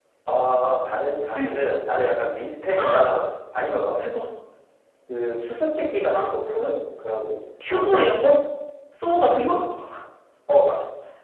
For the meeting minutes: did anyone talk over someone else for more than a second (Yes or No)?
No